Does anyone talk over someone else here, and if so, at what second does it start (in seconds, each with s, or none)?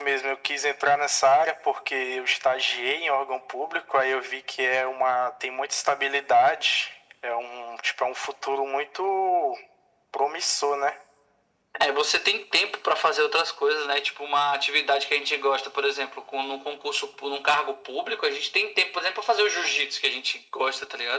none